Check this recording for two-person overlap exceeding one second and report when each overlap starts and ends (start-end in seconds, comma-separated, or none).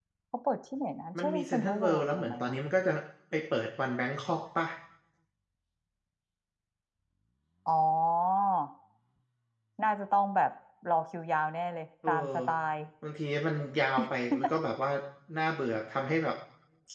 1.2-2.6